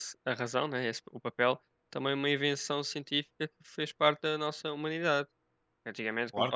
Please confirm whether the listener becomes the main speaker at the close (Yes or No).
No